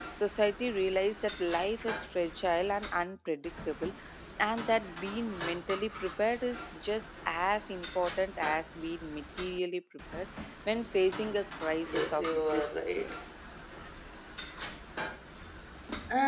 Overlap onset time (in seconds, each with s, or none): 11.8 s